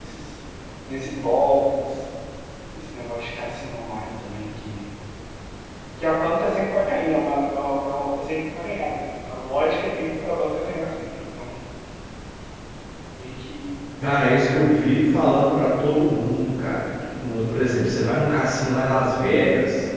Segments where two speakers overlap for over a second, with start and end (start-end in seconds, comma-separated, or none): none